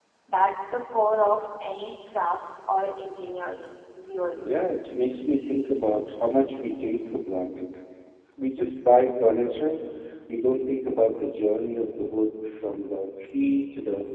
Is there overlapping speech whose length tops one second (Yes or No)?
No